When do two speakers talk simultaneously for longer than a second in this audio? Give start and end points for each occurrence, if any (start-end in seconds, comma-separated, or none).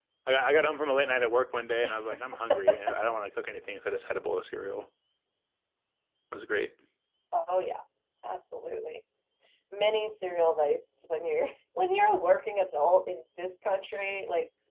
none